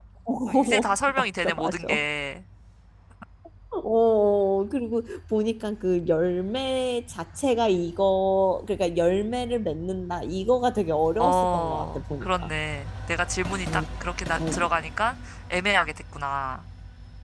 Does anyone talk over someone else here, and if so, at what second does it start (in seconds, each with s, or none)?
0.6 s